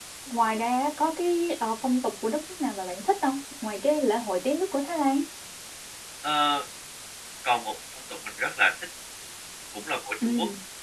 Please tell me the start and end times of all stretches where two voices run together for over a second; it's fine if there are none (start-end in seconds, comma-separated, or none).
none